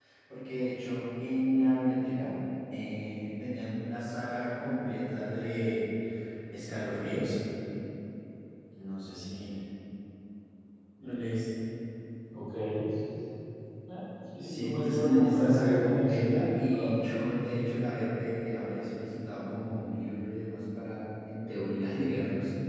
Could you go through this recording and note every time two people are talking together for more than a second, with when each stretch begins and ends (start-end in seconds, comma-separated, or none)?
14.4-16.9